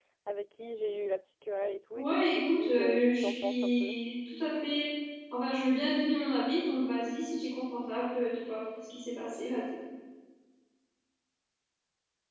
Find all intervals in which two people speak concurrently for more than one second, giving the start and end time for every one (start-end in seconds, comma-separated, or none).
2.0-3.9